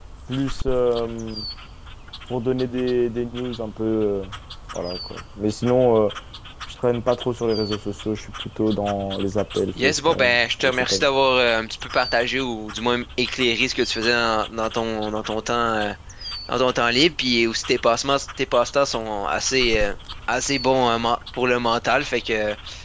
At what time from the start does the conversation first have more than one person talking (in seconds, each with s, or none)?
9.8 s